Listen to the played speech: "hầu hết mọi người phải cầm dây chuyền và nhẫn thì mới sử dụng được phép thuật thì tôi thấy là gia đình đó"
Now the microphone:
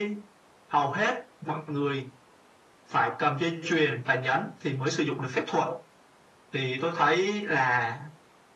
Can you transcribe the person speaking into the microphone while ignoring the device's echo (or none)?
none